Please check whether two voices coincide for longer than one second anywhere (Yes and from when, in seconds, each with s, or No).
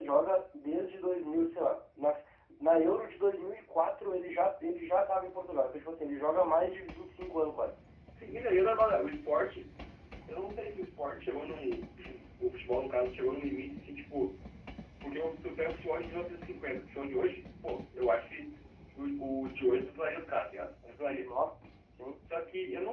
No